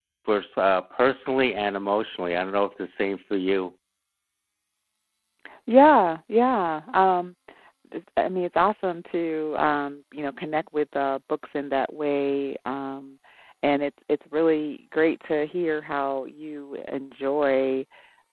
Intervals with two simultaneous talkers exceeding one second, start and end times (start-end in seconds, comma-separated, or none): none